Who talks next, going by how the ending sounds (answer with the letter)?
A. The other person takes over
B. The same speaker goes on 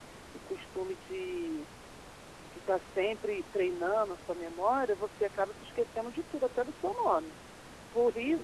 B